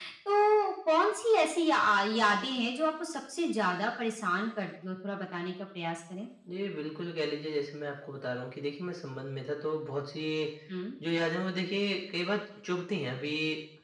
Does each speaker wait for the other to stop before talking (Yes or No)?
Yes